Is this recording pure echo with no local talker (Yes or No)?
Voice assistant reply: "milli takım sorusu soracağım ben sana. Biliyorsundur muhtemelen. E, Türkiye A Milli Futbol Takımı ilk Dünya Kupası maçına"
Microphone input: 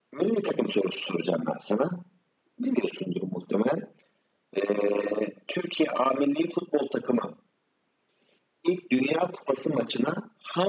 Yes